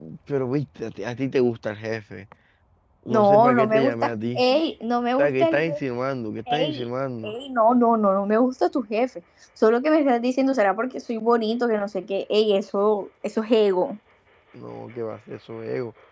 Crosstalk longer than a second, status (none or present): present